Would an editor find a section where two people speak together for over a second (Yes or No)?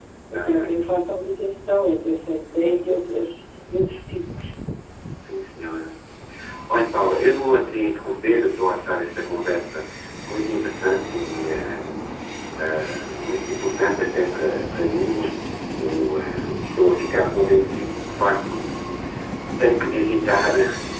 No